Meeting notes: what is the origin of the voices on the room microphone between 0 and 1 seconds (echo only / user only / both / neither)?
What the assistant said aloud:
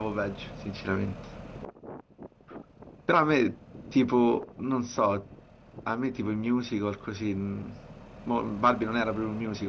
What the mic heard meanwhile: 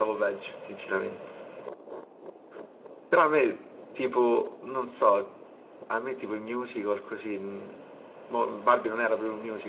echo only